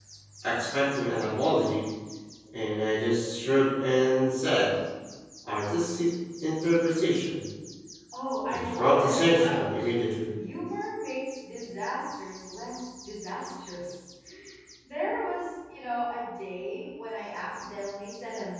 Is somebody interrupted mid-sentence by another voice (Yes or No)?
Yes